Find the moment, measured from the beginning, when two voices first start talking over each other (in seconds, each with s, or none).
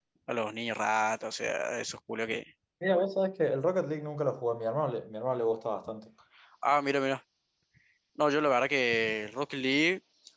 none